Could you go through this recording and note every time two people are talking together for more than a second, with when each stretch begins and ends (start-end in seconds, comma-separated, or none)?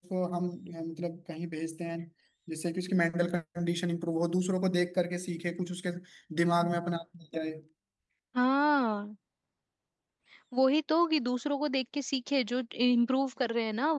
none